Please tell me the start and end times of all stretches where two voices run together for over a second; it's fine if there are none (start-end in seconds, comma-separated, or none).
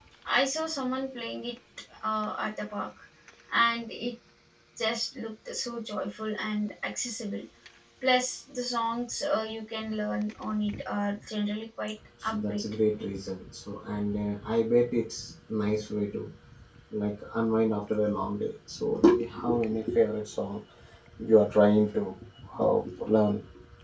none